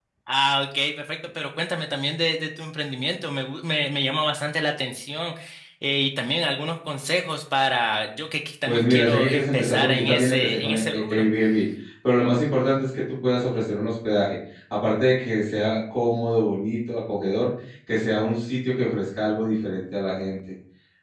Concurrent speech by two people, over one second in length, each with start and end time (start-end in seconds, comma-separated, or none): 8.7-11.2